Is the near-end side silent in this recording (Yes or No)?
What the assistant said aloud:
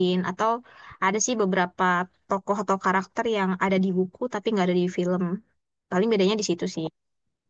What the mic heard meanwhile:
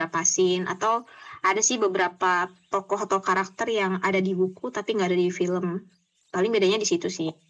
Yes